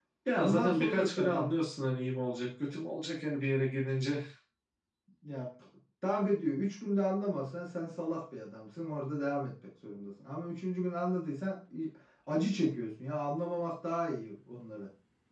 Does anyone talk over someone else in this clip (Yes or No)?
Yes